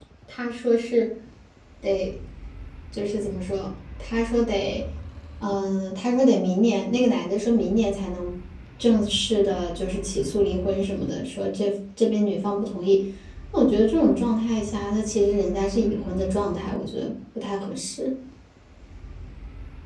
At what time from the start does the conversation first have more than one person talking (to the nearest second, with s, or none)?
none